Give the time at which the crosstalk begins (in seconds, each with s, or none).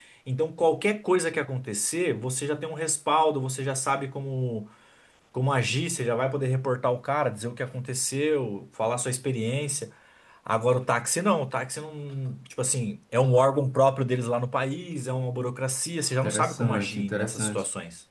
16.2 s